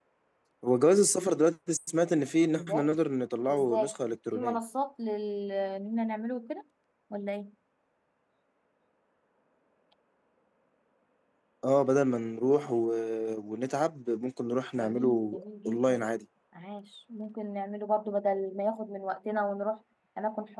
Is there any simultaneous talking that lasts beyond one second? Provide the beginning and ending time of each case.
14.8-16.0

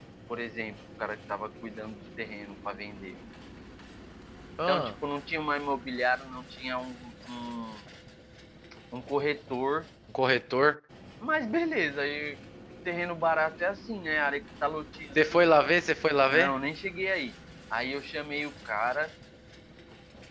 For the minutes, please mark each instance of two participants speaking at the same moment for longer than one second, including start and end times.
none

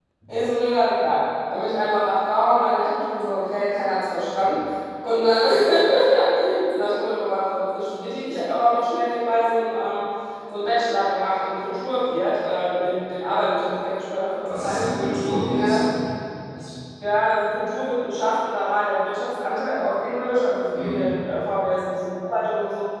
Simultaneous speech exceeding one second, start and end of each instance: none

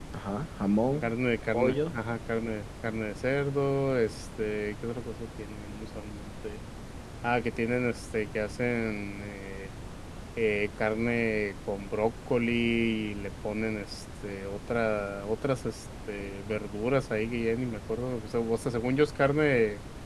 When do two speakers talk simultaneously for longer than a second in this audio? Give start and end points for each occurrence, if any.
none

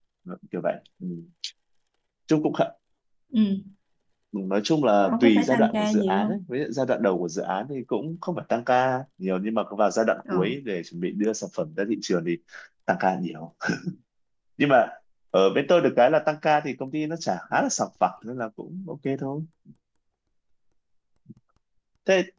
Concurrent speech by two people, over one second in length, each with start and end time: 5.1-6.4

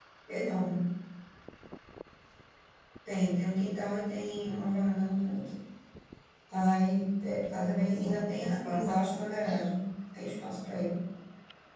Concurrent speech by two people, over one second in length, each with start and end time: 7.5-8.9

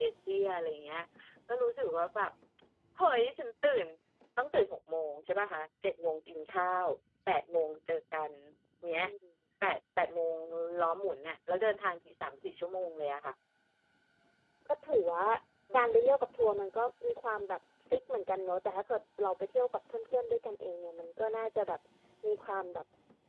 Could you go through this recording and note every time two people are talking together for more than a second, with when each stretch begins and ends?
none

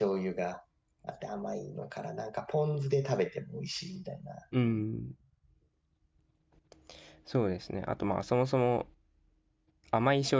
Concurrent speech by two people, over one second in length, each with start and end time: none

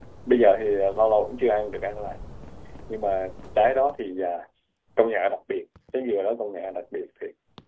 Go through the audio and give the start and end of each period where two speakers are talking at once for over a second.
none

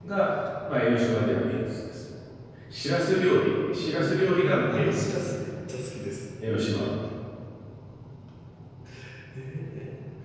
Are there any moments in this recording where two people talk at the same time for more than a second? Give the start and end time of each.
3.9-5.4

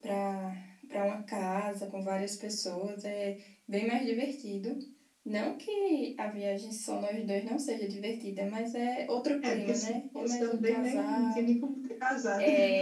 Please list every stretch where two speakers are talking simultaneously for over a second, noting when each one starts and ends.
9.4-11.5

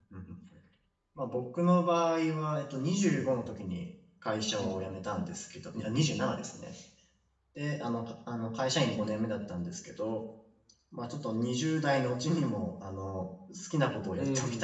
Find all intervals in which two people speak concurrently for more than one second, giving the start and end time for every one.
none

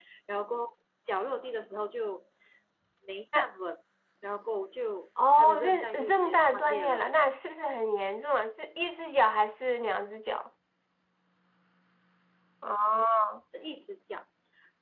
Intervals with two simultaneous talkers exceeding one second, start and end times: 5.4-7.1

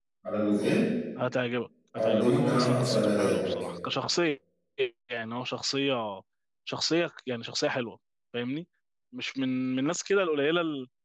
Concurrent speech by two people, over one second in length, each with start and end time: 1.9-3.6

